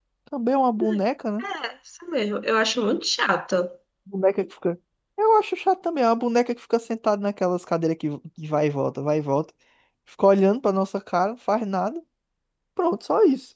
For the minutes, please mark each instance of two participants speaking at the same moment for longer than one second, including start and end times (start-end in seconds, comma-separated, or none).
none